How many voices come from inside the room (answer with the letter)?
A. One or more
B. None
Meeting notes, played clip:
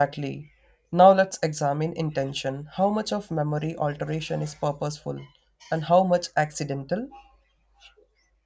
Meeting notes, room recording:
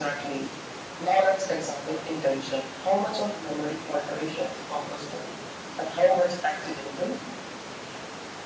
B